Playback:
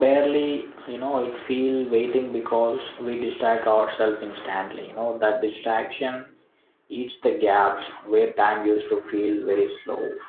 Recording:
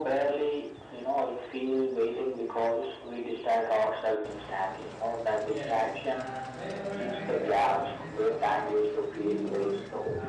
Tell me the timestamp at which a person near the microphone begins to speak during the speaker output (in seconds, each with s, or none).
5.4 s